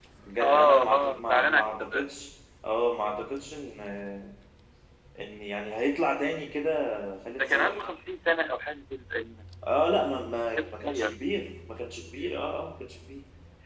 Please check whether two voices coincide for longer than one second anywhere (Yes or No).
Yes